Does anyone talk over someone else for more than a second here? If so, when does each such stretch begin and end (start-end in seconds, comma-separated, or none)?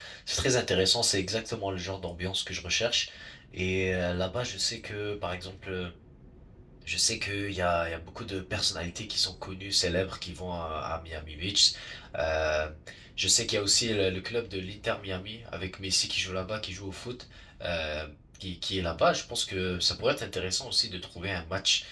none